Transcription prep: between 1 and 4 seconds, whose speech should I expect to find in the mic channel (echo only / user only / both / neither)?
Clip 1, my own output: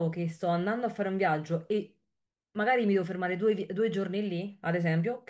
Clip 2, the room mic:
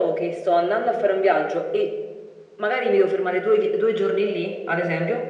echo only